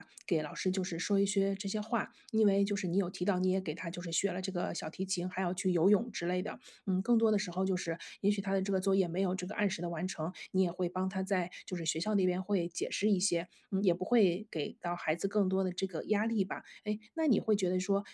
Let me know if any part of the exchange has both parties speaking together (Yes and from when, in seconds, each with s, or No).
No